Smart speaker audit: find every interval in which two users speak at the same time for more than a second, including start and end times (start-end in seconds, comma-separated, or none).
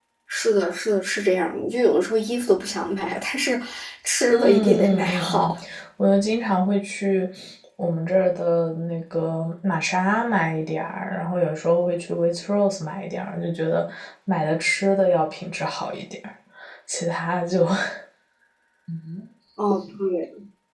4.3-5.6